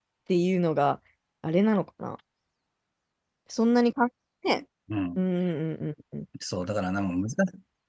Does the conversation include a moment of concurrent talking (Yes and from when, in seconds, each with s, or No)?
No